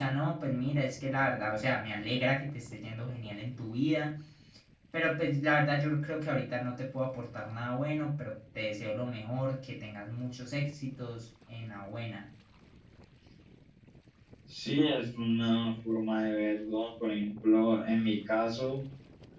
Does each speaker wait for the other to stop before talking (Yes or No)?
Yes